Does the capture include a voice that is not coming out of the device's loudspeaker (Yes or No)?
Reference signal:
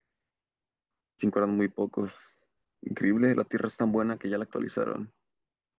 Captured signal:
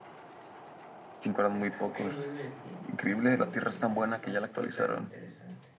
Yes